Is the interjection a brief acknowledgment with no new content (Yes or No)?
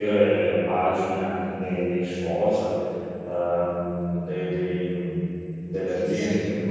No